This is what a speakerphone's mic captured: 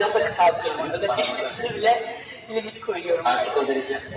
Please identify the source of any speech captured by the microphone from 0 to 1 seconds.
echo only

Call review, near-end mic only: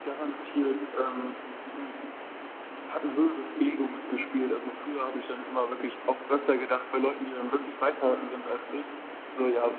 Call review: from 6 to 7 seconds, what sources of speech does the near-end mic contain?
echo only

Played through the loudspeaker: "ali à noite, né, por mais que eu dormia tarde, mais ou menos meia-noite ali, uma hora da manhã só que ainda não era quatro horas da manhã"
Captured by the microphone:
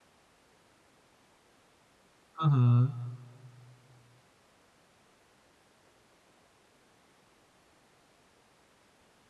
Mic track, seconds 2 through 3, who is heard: user only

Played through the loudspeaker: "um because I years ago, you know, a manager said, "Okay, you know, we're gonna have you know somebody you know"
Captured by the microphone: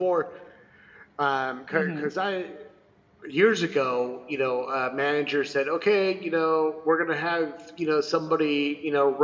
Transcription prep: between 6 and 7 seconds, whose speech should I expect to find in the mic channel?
echo only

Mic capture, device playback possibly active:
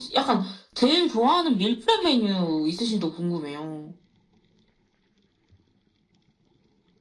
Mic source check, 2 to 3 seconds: echo only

